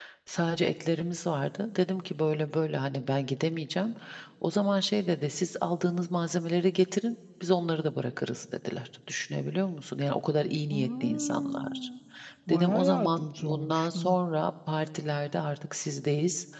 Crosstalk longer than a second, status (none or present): present